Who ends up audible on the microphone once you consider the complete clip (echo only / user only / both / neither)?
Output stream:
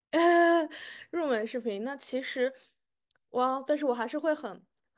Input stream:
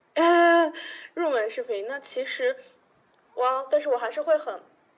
echo only